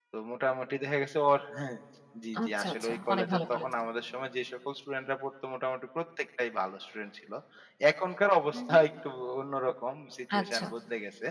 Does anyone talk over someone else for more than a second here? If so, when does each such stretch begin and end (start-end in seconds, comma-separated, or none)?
2.4-3.7